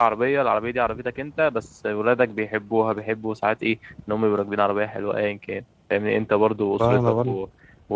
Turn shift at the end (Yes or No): No